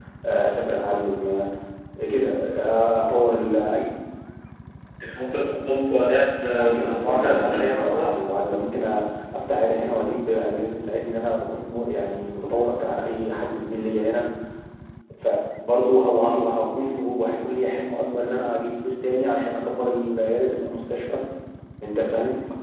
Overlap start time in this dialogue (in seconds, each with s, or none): 6.4 s